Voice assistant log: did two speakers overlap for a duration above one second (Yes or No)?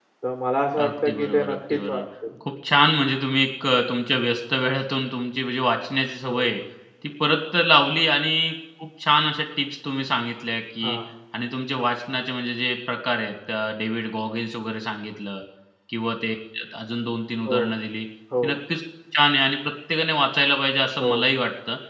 Yes